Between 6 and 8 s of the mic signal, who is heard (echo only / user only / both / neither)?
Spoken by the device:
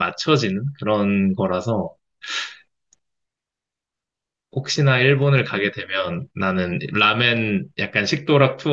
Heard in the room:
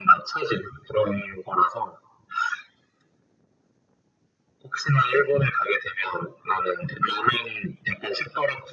echo only